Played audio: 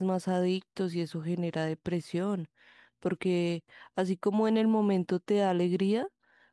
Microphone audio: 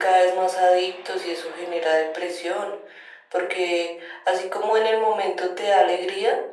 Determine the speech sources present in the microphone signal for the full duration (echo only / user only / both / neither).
echo only